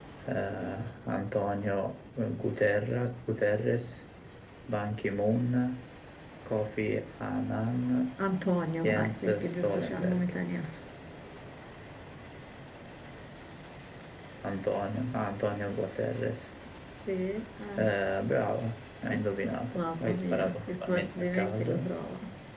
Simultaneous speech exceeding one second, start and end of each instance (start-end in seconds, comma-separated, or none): 8.8-10.3, 19.7-21.7